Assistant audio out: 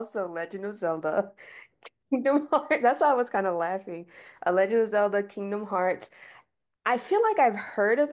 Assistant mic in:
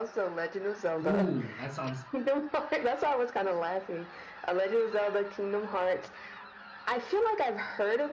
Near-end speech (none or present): present